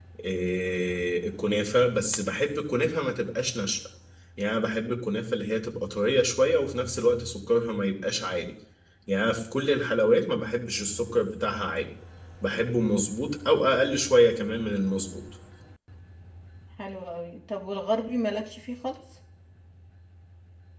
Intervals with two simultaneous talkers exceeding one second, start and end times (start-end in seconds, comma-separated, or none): none